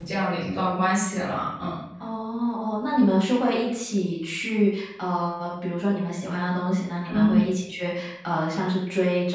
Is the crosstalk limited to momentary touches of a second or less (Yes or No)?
Yes